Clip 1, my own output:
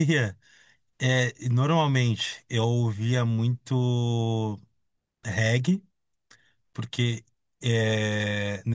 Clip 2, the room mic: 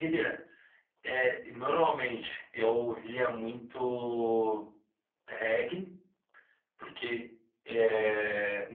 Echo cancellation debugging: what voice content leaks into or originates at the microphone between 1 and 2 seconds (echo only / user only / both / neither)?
echo only